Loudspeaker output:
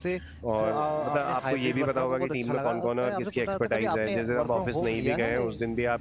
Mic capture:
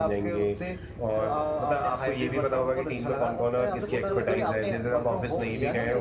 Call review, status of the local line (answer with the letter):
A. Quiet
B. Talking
B